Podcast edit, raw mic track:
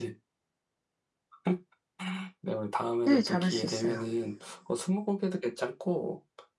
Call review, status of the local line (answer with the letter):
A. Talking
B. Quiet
A